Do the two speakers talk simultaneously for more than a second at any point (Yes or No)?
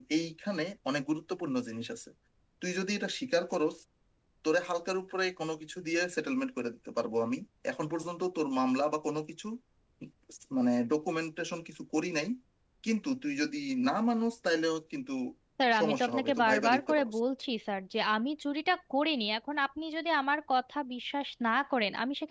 Yes